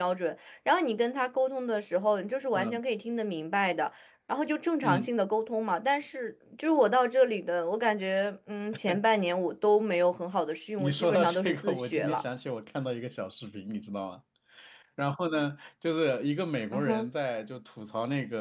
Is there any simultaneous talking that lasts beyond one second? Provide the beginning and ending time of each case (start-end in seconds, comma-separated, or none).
10.8-12.2